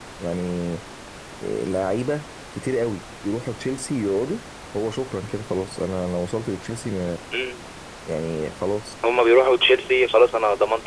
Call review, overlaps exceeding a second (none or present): none